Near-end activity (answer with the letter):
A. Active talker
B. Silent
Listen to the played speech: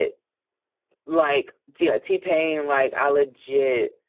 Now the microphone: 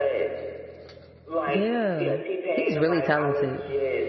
A